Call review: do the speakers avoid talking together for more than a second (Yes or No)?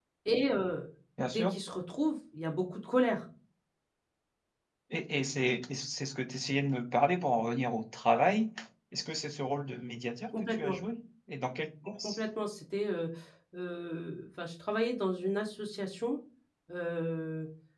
Yes